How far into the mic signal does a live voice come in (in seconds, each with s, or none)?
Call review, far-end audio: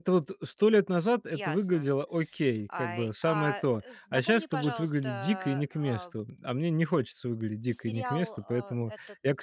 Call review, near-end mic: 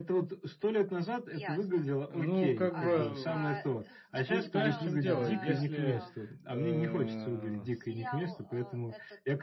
2.1 s